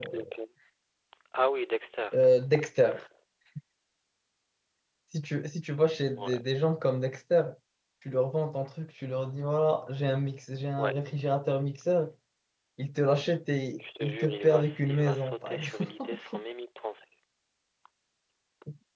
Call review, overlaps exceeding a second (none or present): present